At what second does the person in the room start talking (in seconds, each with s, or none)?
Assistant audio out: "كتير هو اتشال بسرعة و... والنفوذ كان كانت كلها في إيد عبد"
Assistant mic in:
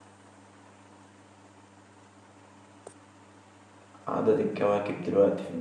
4.1 s